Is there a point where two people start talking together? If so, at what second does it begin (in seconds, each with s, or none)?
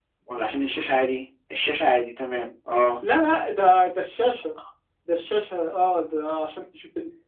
none